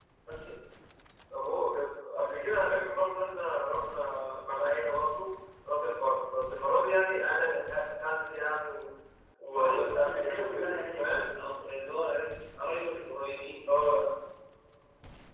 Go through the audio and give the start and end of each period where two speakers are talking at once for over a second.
9.6-11.2

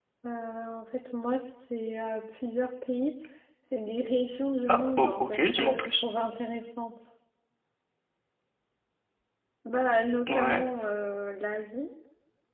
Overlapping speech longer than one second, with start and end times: 4.7-6.0

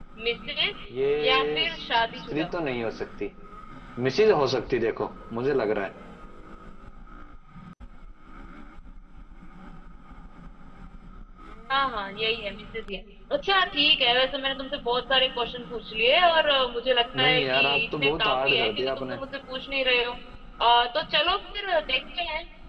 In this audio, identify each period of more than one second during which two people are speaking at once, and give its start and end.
17.2-19.2

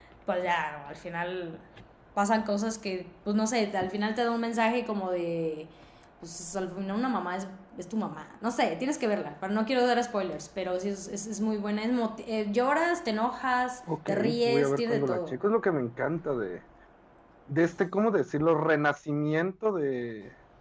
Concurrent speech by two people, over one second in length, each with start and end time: 14.1-15.3

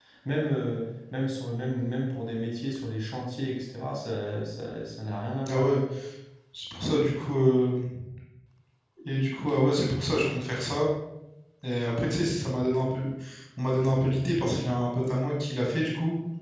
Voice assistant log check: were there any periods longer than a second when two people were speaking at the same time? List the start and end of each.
none

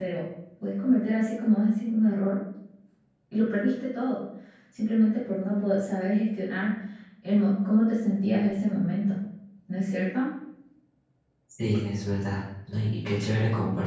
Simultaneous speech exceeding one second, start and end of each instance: none

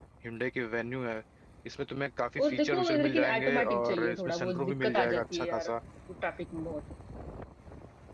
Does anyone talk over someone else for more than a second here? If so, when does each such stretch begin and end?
2.4-5.7

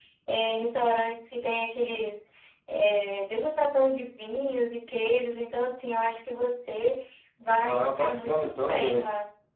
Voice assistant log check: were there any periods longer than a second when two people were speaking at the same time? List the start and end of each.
7.6-9.1

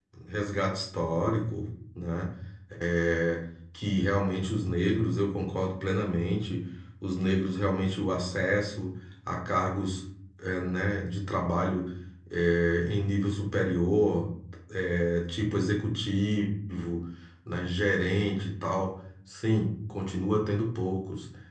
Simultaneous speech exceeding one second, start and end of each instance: none

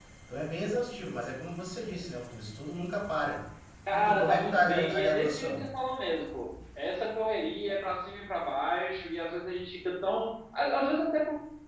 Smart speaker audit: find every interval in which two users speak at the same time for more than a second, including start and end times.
3.9-5.6

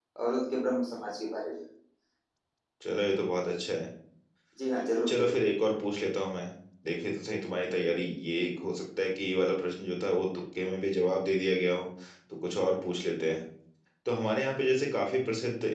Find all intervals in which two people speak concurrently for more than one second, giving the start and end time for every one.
none

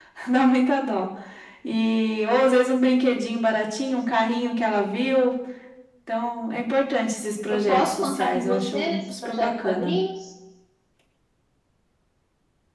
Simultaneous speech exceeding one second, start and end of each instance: 7.5-9.9

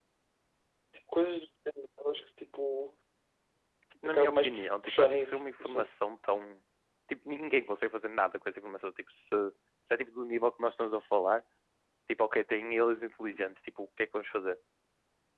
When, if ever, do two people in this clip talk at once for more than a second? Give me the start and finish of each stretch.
4.0-5.9

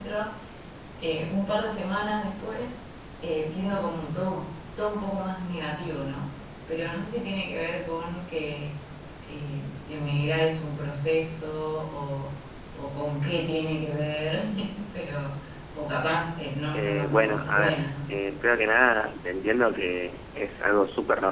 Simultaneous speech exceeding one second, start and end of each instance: 16.7-18.1

